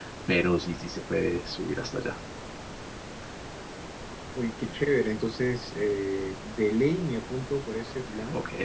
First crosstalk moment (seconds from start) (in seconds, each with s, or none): none